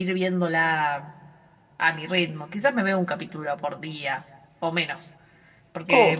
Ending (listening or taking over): listening